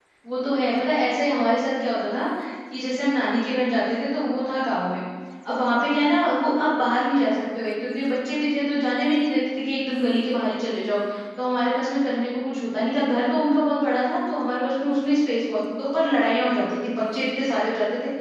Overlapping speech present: No

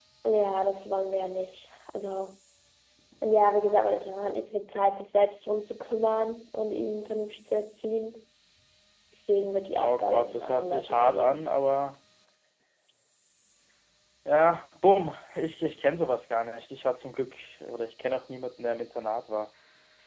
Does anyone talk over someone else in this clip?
Yes, from 9.8 s

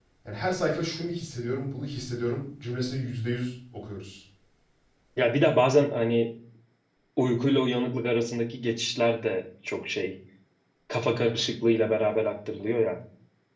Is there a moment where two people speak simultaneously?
No

